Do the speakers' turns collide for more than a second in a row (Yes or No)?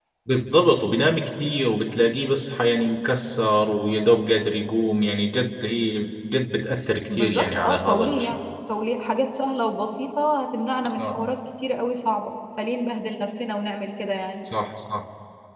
Yes